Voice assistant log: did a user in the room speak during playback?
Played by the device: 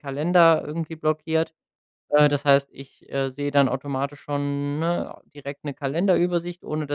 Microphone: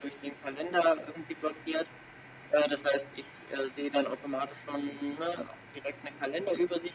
No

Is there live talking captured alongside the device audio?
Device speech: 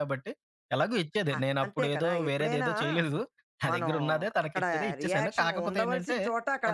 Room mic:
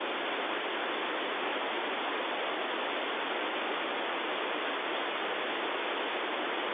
No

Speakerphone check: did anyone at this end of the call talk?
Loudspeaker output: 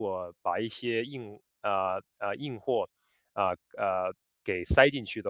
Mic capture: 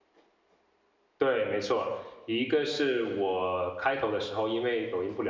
Yes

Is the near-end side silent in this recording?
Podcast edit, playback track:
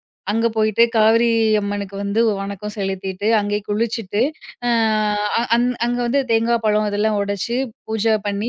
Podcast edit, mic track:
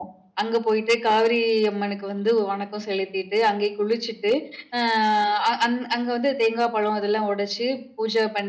Yes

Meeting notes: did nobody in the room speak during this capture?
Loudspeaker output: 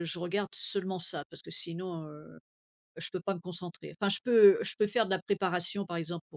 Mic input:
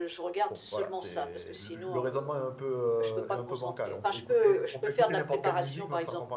No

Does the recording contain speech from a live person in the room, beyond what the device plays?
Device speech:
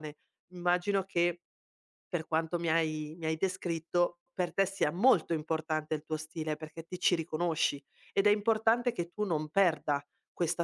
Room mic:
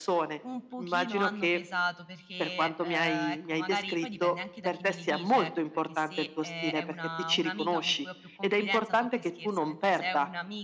Yes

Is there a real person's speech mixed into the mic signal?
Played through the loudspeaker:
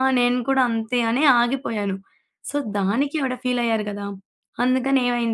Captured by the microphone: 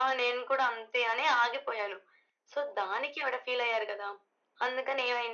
No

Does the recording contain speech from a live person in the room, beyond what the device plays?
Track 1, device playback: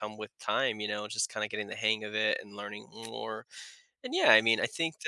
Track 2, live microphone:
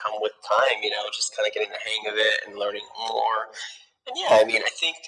No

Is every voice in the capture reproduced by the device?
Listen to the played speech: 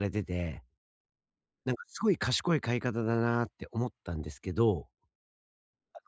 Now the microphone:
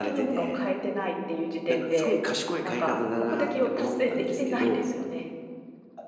No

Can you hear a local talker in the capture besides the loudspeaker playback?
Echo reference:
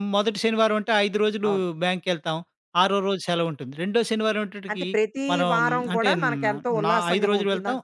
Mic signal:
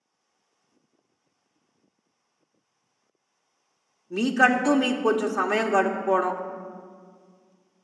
Yes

